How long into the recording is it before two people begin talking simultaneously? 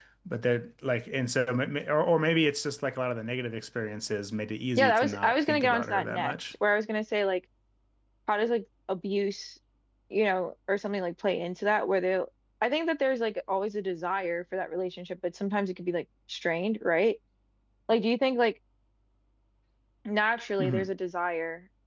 4.8 s

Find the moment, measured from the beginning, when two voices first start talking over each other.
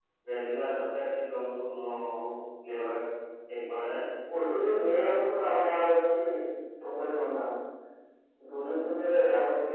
none

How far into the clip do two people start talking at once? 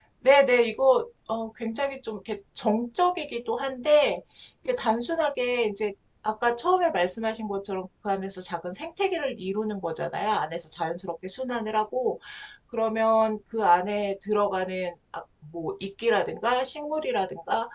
none

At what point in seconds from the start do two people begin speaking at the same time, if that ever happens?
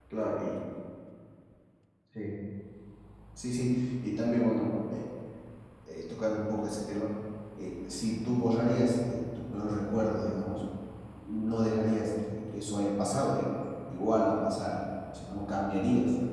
none

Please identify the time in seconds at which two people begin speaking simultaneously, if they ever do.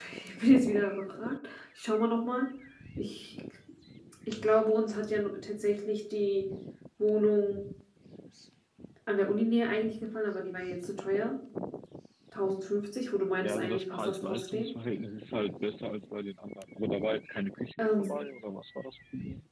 13.4 s

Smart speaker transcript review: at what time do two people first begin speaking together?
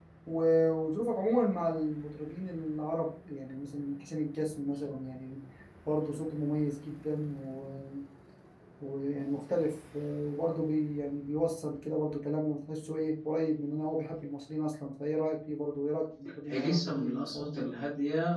16.5 s

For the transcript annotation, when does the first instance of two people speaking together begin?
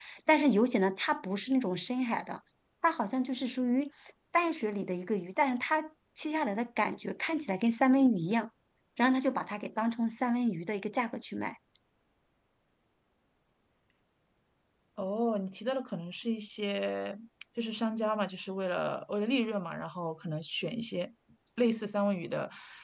none

